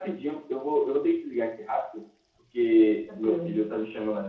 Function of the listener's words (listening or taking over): listening